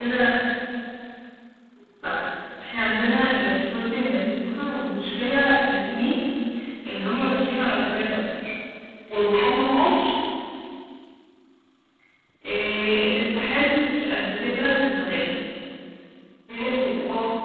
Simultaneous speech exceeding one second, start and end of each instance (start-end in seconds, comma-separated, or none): none